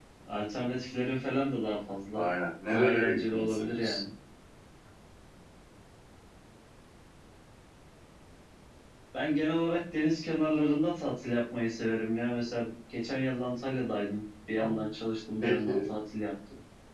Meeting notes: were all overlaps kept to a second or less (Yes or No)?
No